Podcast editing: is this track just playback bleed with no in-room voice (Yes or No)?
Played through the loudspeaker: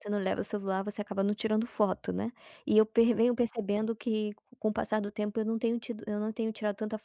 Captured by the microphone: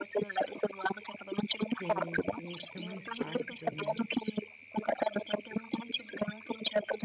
No